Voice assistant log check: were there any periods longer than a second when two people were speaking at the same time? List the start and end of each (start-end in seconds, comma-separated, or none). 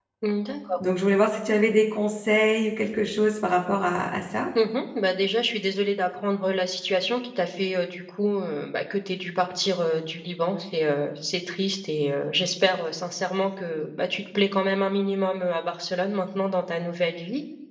none